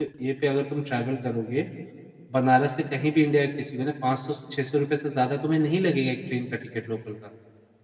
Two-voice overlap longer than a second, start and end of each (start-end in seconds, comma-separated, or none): none